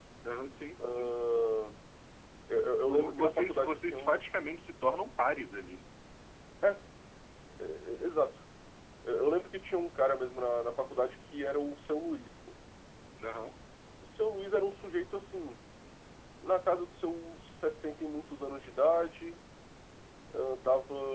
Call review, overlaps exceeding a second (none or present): present